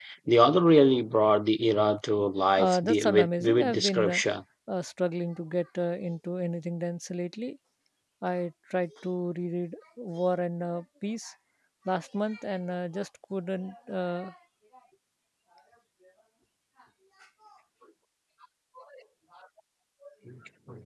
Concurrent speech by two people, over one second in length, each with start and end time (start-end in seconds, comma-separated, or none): 2.6-4.2